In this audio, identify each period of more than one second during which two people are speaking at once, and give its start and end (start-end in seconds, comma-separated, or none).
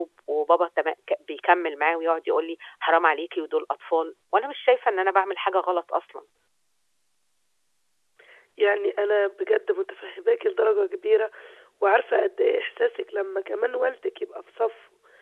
none